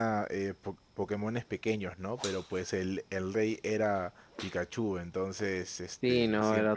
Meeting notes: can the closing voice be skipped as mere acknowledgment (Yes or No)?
No